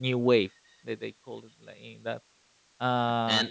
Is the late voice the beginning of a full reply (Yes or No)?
No